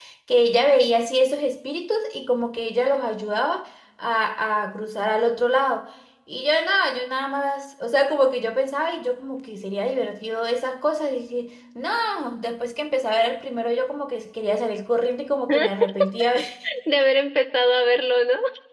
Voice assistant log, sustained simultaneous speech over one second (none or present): none